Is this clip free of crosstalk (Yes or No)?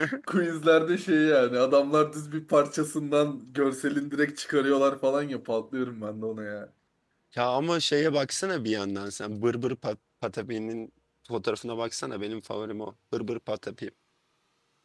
Yes